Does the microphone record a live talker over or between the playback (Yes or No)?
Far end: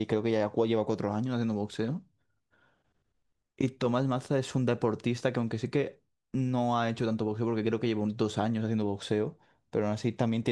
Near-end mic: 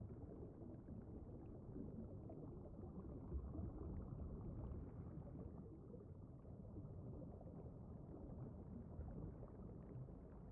No